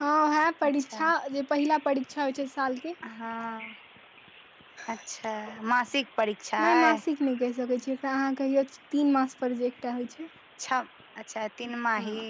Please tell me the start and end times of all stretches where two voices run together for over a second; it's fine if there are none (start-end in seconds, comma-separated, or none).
none